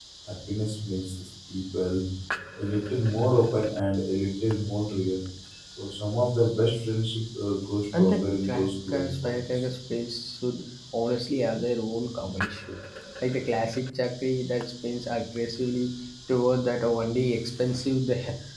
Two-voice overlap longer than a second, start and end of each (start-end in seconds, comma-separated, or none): 7.9-9.5